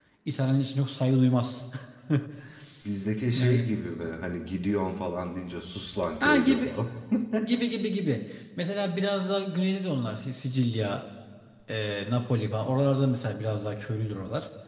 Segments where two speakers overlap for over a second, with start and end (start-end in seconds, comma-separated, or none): none